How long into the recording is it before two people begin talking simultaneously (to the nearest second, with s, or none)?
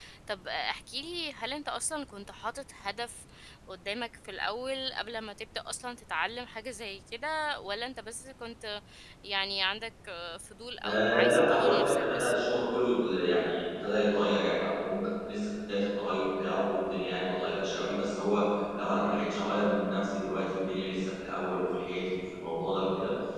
11 s